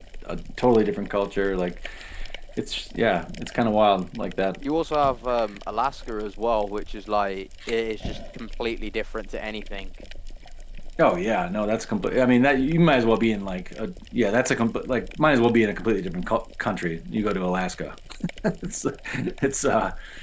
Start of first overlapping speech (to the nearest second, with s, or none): none